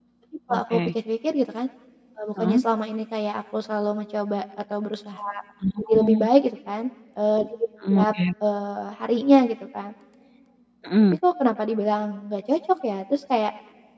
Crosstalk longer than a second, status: none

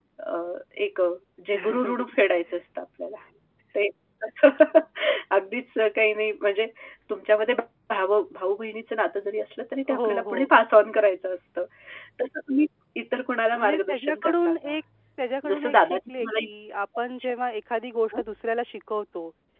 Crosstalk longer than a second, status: present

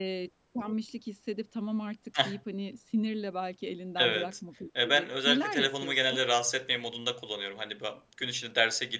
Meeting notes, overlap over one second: present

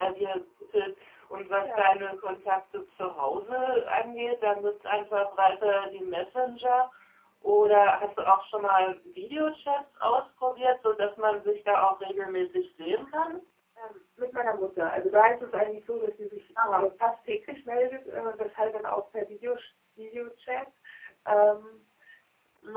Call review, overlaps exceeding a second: none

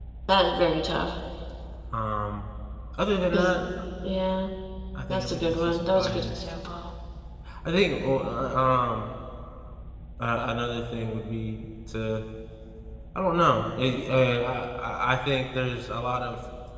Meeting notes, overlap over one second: present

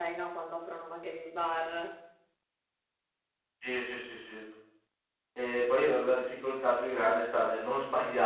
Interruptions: none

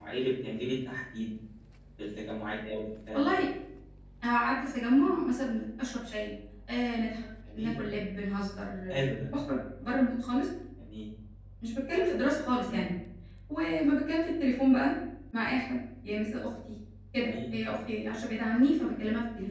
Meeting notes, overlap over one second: none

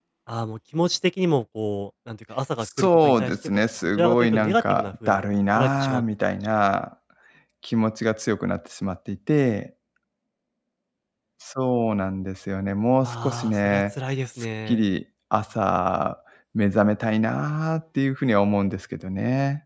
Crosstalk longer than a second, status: present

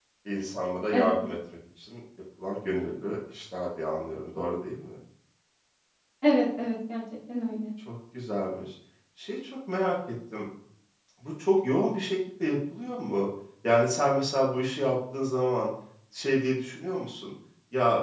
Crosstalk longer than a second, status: none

